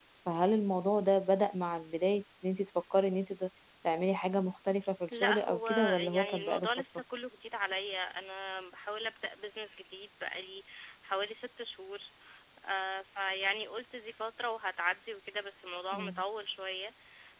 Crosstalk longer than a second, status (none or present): present